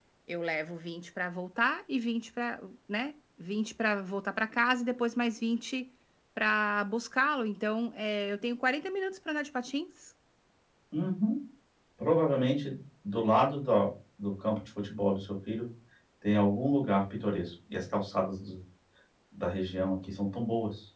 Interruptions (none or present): none